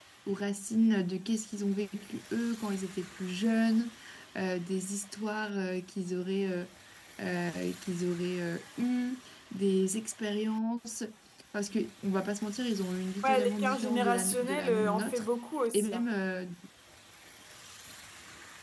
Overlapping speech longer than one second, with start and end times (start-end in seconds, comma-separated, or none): 13.2-15.3